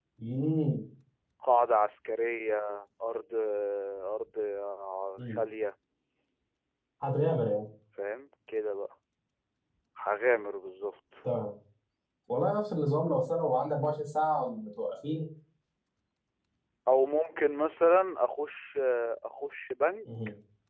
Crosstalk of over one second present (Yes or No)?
No